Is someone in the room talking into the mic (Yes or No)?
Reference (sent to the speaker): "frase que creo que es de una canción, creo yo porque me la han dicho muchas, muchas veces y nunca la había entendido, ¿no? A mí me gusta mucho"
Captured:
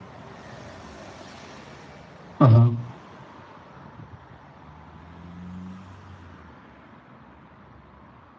Yes